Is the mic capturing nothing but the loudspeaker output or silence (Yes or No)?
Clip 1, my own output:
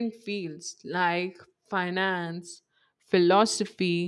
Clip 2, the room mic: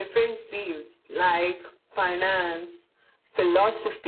Yes